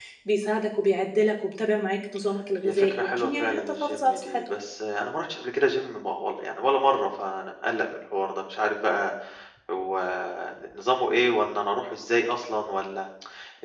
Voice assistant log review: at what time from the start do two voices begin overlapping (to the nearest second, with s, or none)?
3 s